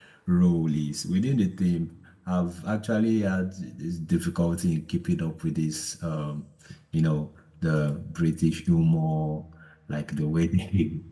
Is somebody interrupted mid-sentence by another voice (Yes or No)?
No